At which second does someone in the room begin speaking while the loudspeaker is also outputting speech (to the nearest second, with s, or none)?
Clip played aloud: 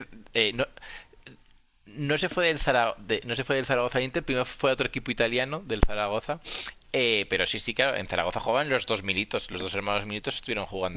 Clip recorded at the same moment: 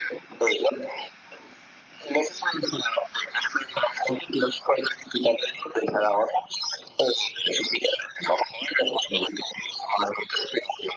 none